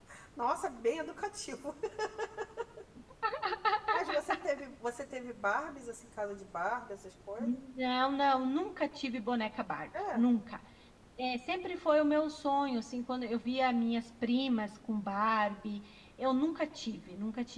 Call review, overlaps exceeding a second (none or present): none